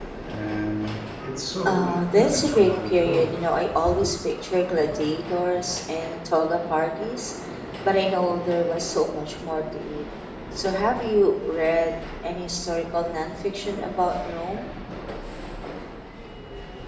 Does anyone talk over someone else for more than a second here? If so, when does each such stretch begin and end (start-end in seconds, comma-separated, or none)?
1.6-3.4